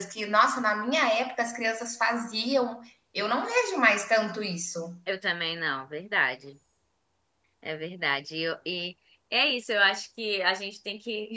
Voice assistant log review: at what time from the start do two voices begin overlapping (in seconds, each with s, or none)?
none